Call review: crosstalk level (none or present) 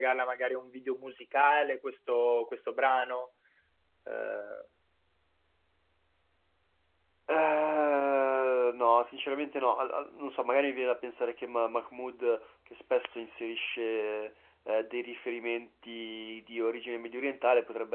none